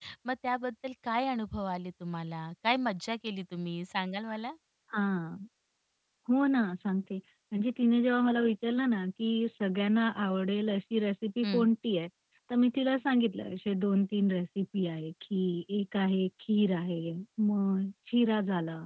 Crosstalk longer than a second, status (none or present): none